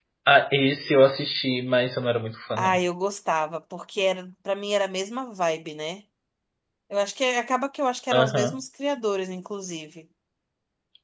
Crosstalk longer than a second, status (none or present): none